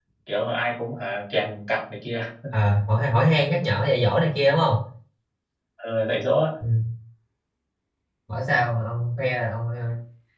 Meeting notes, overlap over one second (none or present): none